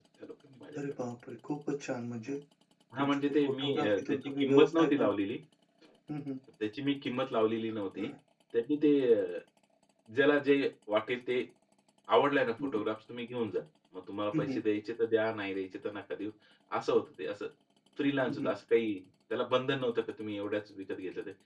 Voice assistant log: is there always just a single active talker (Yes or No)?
No